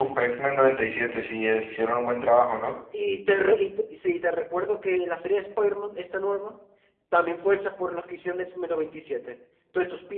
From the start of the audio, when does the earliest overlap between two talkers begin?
none

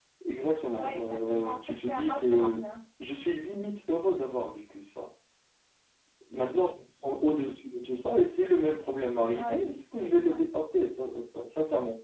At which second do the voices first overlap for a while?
0.7 s

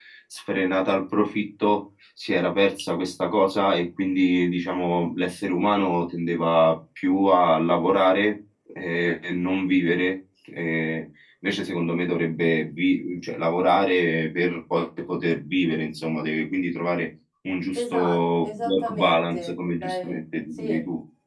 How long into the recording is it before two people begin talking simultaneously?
17.8 s

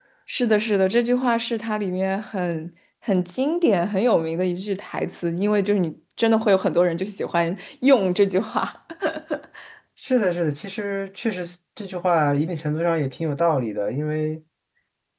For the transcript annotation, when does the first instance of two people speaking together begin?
none

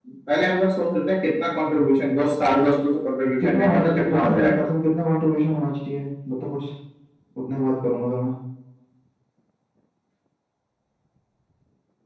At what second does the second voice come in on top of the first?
3.4 s

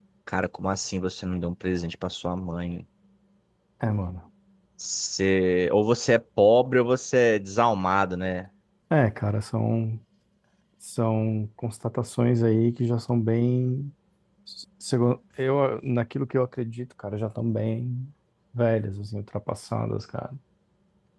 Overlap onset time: none

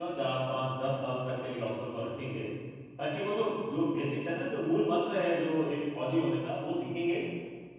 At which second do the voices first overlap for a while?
none

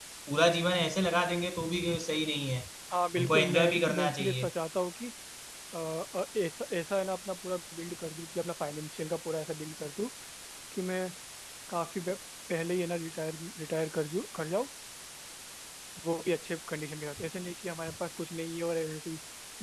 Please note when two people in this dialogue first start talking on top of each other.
3.2 s

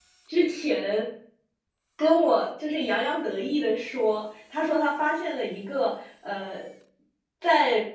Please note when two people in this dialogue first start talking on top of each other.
none

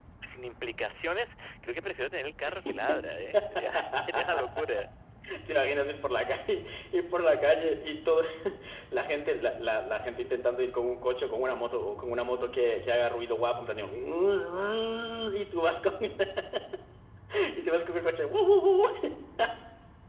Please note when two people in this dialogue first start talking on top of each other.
none

